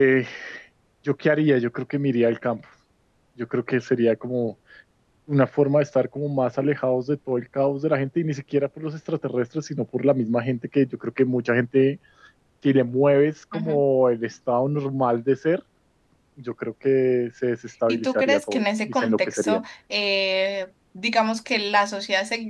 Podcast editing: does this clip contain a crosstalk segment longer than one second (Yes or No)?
Yes